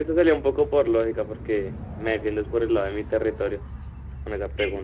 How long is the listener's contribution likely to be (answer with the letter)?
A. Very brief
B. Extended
B